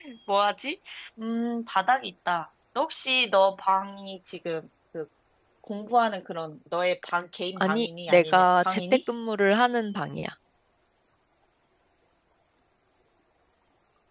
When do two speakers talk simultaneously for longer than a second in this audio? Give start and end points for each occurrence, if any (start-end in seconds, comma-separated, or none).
7.6-8.8